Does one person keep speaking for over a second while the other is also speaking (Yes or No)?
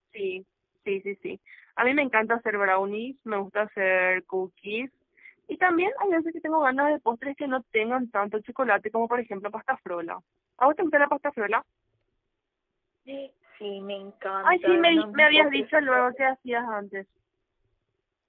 Yes